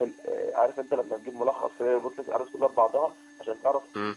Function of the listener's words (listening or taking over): listening